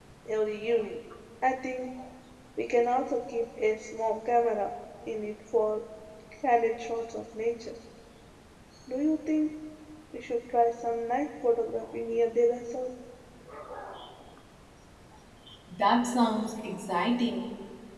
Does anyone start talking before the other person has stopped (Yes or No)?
No